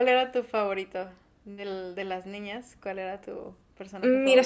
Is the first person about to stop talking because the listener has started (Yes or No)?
Yes